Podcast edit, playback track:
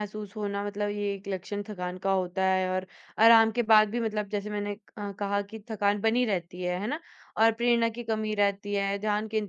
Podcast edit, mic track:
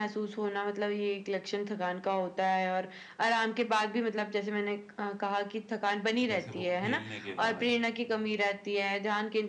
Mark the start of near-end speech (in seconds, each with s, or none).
6.3 s